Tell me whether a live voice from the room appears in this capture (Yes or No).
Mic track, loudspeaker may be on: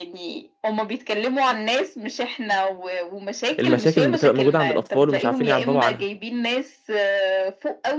Yes